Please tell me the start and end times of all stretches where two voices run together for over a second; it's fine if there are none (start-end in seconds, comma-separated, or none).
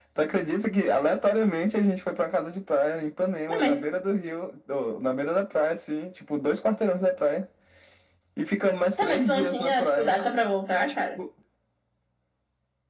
9.0-10.2